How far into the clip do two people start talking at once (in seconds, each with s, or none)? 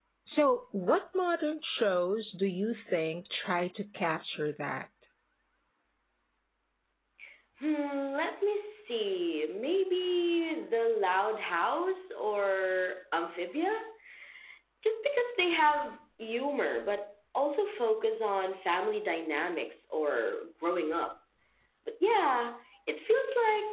none